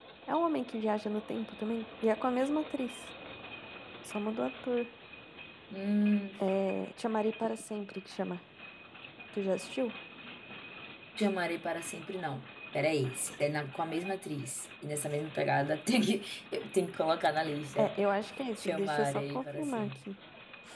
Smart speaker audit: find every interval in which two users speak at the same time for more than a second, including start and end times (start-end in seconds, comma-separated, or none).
18.6-20.0